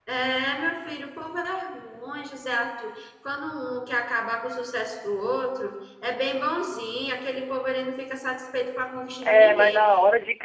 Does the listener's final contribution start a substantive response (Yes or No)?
Yes